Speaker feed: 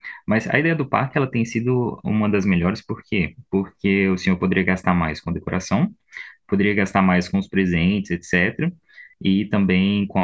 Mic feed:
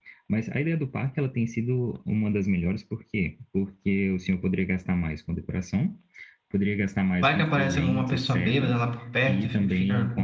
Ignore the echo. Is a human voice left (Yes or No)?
Yes